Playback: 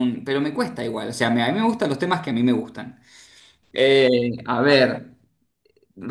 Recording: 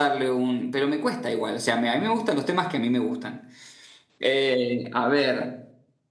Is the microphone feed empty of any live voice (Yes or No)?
Yes